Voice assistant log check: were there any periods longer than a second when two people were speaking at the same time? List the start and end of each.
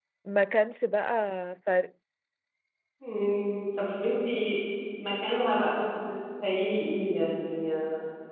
none

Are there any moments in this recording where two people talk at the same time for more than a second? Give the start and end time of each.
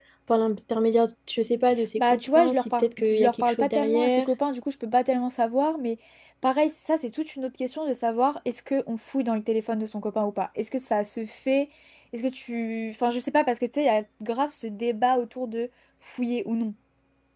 2.0-4.2

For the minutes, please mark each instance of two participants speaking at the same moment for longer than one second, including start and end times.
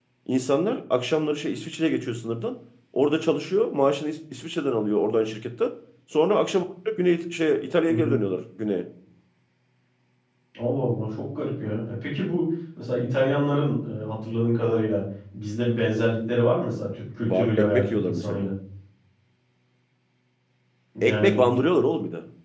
17.3-18.5

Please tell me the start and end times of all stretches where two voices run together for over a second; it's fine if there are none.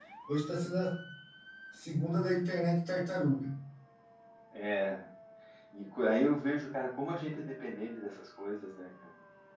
none

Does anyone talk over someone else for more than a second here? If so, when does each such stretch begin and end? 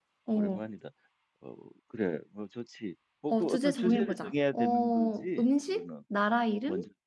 3.3-5.9

